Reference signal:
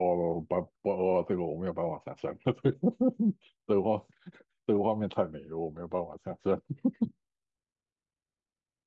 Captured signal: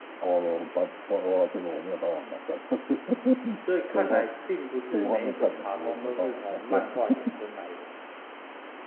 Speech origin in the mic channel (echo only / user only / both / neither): both